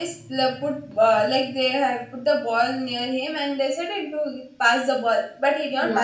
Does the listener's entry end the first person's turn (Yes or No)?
No